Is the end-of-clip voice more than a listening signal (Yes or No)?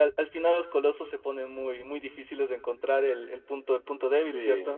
Yes